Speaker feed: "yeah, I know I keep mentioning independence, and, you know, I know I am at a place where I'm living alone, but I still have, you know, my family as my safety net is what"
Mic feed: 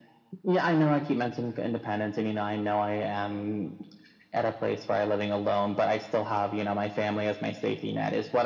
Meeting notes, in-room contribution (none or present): none